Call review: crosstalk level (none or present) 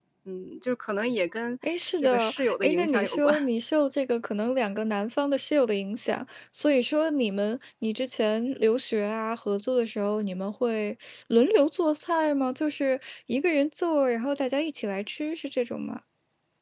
present